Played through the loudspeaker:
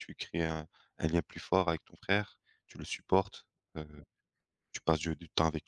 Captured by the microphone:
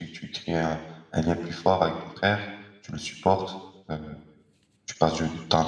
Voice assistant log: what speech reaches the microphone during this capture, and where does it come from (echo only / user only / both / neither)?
echo only